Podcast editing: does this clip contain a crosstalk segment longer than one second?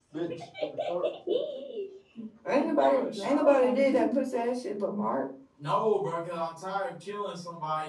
Yes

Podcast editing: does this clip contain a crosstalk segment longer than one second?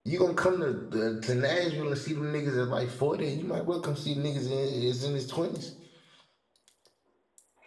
No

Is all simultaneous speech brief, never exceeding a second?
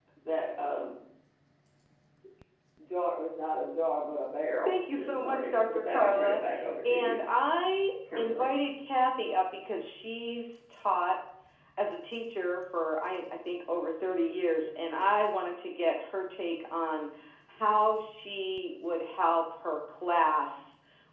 No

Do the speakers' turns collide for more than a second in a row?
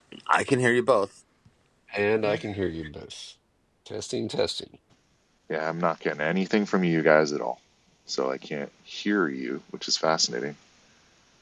No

